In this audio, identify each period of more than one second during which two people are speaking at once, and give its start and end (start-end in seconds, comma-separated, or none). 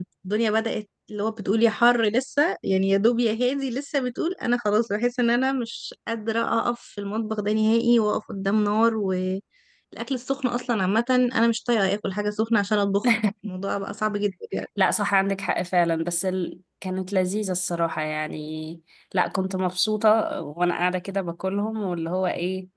none